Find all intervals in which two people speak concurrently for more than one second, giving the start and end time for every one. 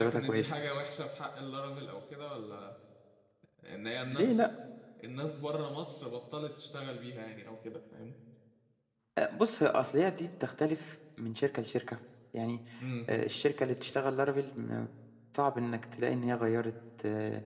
none

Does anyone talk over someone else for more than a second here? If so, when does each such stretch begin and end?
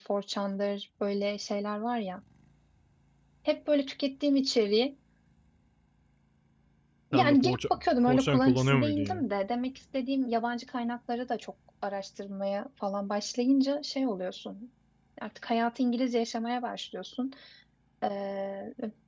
7.1-9.2

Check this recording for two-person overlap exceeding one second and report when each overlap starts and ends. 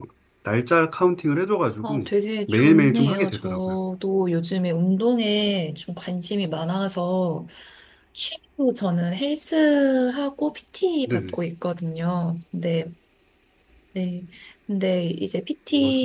2.5-3.8

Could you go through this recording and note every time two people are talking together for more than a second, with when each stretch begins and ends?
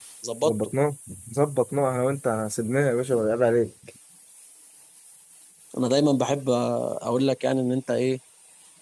none

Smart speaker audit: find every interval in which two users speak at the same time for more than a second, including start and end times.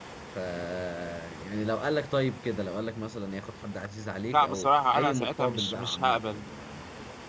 4.3-6.2

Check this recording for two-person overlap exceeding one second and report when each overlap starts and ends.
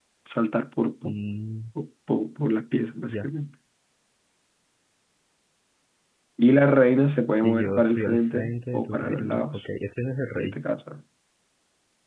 7.4-9.6

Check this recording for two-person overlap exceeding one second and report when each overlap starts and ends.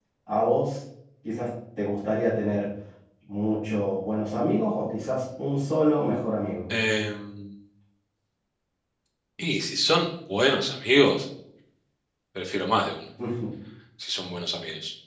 none

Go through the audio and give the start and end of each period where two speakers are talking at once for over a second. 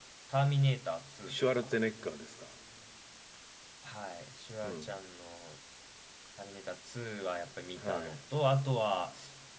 none

